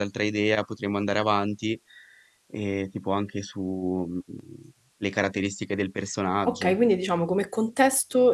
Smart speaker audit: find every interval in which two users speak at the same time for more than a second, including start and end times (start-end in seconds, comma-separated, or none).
none